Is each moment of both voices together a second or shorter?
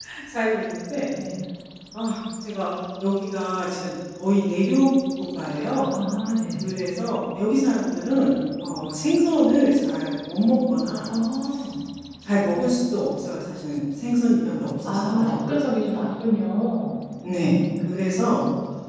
Yes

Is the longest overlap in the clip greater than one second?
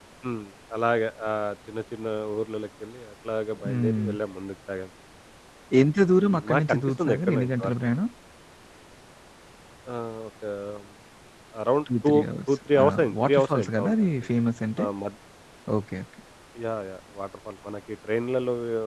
Yes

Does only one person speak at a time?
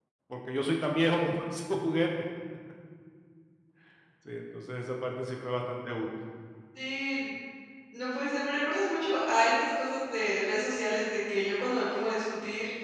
Yes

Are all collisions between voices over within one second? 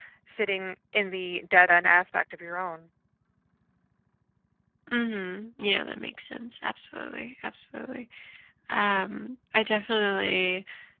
Yes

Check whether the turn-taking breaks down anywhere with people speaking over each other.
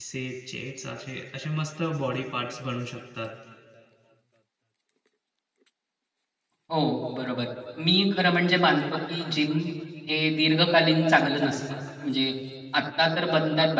No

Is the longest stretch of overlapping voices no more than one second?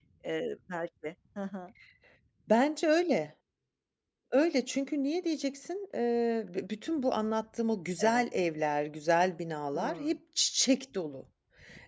Yes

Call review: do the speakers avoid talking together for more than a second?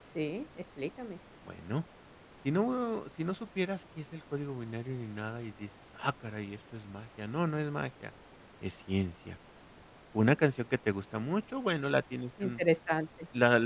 Yes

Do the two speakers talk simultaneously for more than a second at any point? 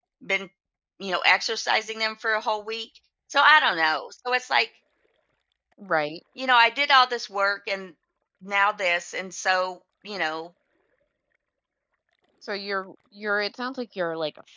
No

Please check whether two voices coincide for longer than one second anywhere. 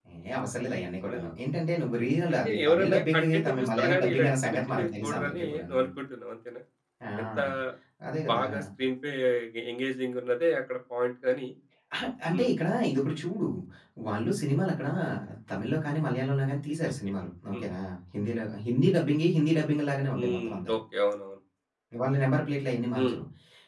Yes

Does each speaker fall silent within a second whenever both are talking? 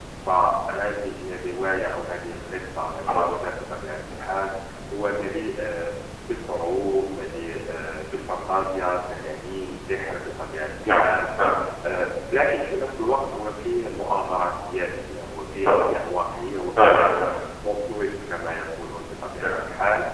Yes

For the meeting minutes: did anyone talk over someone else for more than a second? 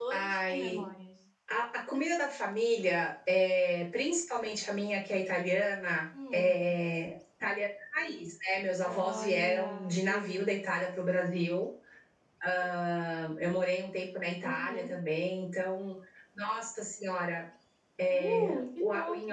Yes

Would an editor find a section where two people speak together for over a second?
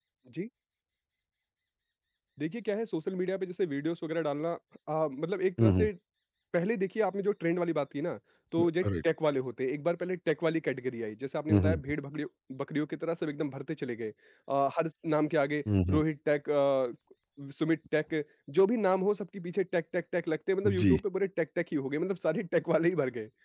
No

